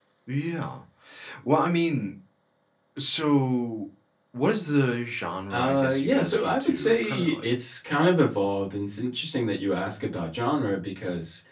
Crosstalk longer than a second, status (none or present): present